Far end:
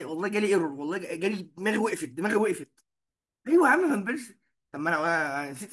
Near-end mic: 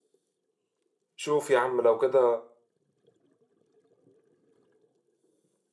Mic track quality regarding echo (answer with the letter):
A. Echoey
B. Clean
B